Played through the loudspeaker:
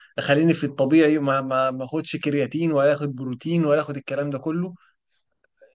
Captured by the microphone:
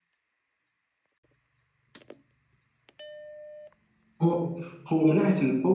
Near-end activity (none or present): present